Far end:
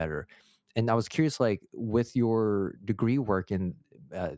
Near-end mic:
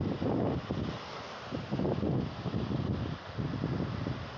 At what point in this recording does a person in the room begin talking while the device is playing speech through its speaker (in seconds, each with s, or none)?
none